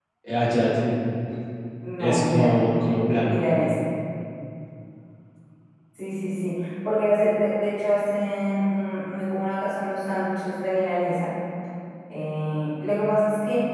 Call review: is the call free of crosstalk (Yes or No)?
No